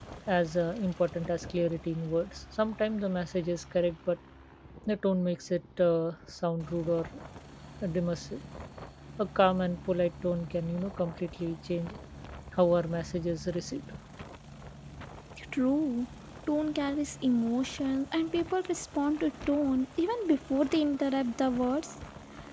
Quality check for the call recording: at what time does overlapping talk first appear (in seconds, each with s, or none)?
none